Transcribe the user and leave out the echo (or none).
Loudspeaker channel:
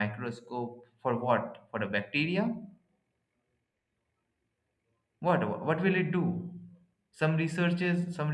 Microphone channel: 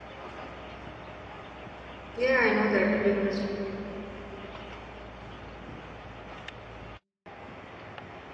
Yeah, I know that everyone is.